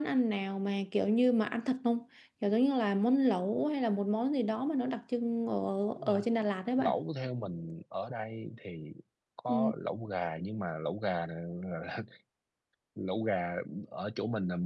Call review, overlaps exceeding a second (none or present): none